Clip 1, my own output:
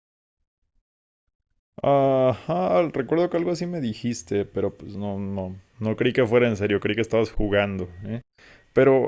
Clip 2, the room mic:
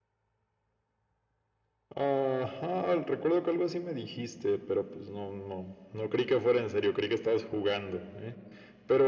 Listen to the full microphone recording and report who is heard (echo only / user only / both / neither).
echo only